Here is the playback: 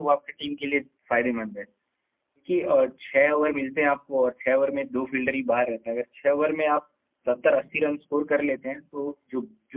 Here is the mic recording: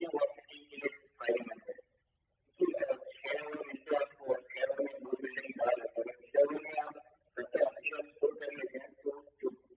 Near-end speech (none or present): none